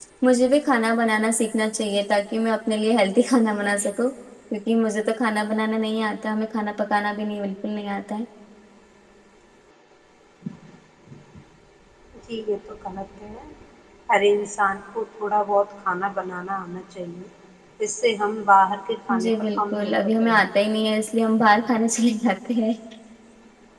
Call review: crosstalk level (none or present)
present